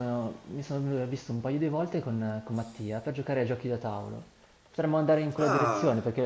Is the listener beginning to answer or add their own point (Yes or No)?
No